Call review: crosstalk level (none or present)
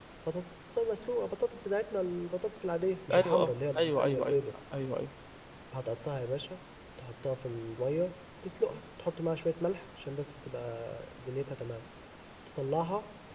present